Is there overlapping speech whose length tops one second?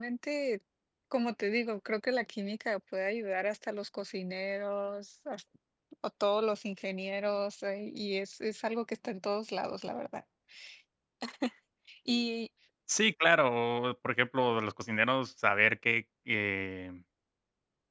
No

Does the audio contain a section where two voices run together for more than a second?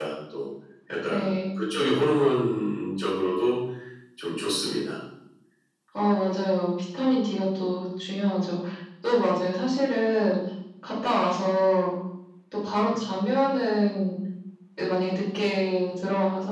No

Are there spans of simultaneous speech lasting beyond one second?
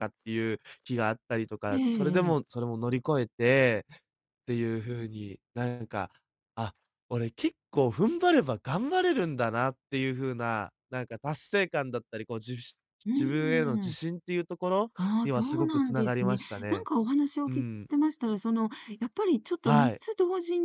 Yes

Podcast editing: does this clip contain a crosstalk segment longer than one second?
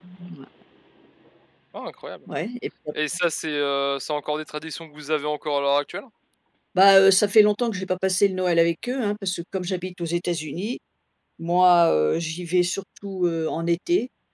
No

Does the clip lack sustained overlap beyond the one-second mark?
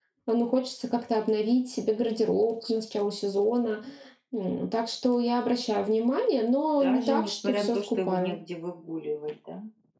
No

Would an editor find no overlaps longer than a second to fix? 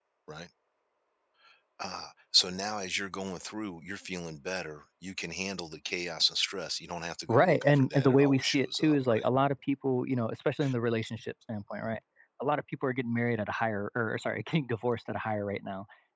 No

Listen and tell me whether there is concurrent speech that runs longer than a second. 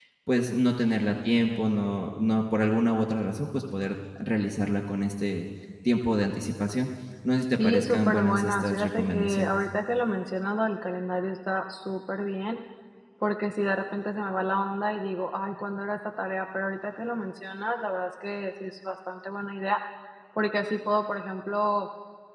Yes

